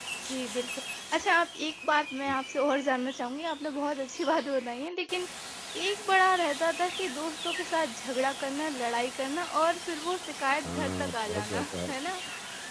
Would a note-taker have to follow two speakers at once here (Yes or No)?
Yes